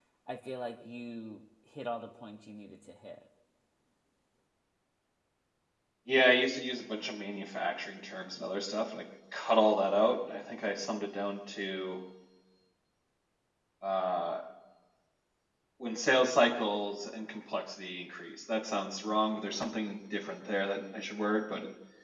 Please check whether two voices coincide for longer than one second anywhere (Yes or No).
No